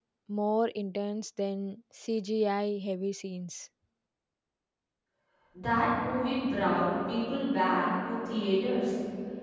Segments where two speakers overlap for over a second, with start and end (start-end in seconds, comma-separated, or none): none